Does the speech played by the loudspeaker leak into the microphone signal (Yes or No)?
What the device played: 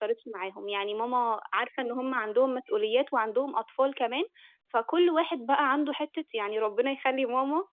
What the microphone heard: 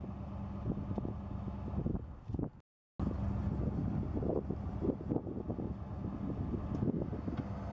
No